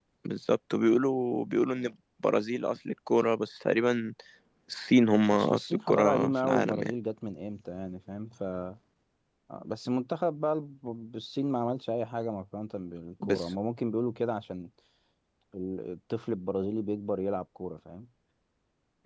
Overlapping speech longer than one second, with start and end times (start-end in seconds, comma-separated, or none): 5.3-6.9